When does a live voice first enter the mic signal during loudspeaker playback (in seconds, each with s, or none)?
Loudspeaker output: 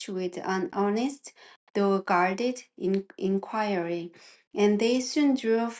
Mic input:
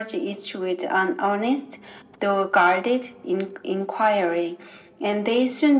none